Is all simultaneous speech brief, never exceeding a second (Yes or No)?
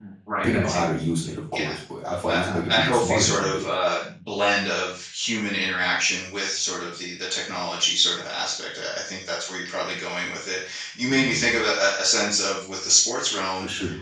No